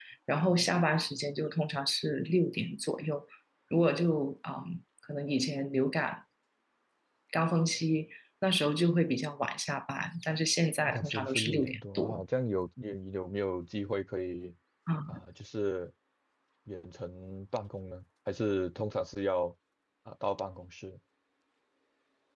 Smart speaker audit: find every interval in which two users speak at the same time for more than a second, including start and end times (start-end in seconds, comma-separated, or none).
10.9-12.2